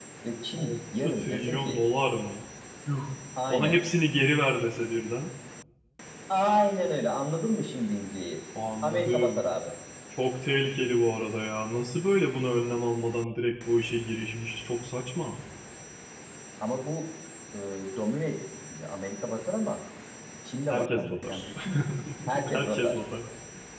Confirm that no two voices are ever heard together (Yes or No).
No